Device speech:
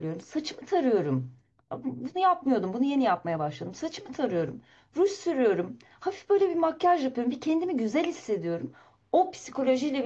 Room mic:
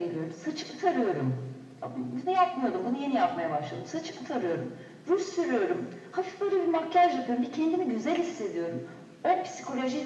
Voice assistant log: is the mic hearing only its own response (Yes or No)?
Yes